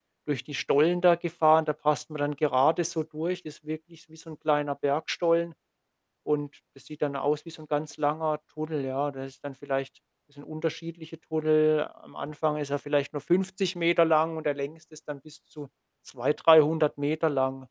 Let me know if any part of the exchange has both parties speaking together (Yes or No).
No